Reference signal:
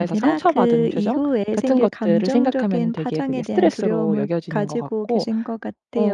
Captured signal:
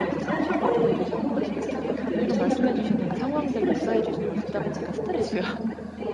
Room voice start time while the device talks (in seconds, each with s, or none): 0.7 s